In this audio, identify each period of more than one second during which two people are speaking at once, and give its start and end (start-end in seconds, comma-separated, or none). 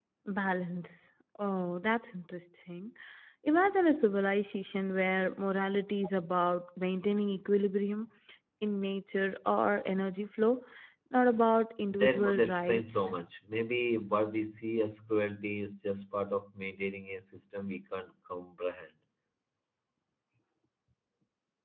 11.9-13.1